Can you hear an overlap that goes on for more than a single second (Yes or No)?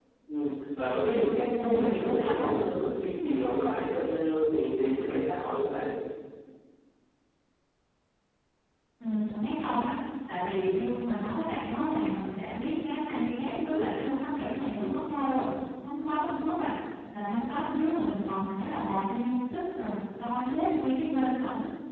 Yes